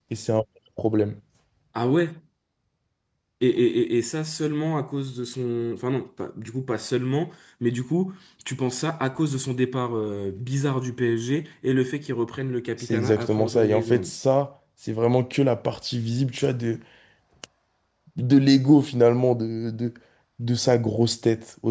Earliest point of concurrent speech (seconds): 12.8 s

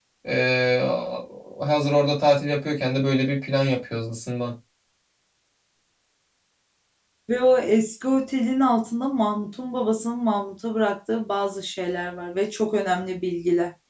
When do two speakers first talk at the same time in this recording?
none

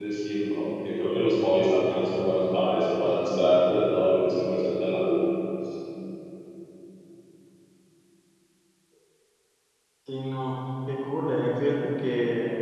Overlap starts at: none

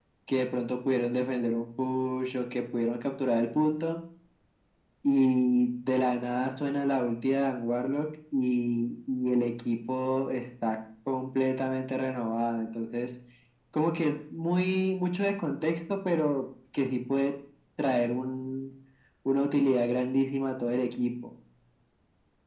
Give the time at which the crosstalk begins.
none

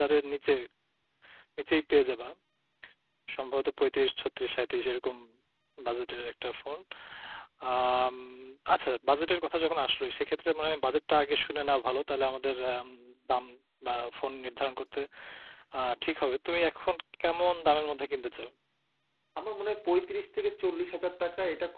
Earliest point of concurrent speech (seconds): none

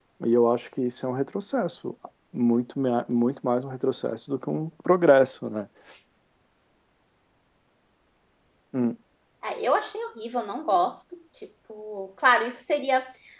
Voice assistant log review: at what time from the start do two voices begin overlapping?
none

